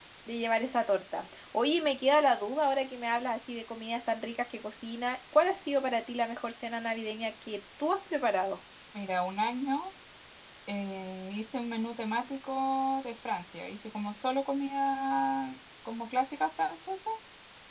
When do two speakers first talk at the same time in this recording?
none

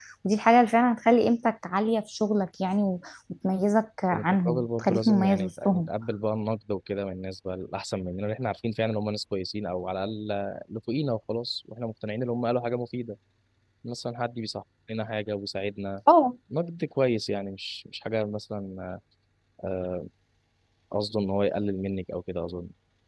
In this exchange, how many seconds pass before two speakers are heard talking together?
4 s

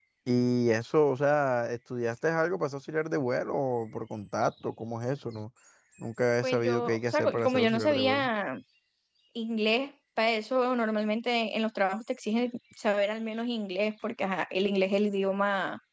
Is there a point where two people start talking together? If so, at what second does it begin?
6 s

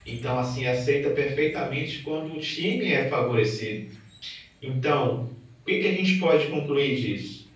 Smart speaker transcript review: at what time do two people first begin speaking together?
none

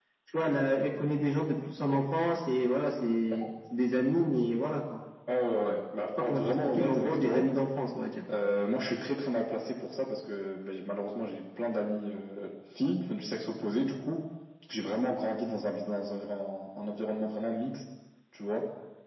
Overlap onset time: 6 s

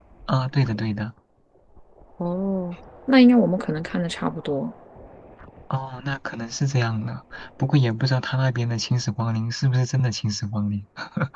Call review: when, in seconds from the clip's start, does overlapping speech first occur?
none

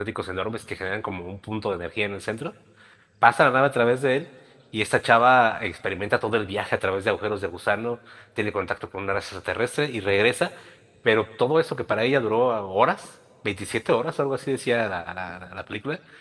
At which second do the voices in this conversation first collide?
none

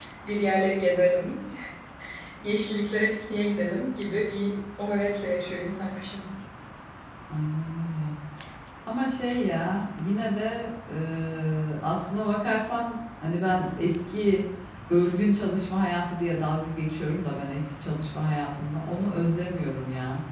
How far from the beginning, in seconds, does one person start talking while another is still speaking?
none

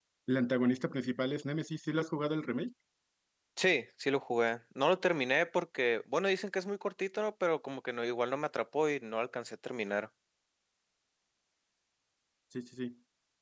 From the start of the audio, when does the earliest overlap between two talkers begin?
none

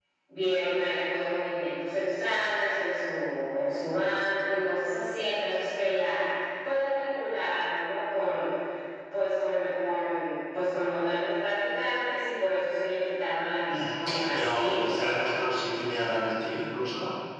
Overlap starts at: 14 s

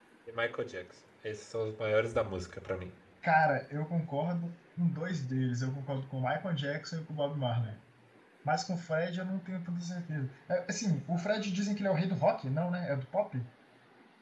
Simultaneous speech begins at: none

